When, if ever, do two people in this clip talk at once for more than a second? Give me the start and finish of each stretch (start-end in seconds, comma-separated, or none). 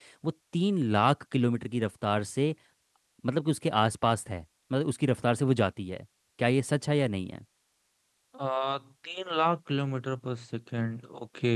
none